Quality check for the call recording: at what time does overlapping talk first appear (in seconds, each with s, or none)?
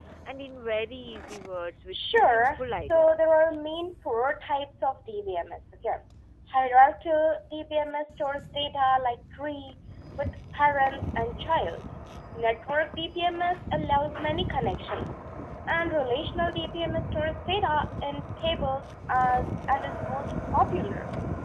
1.9 s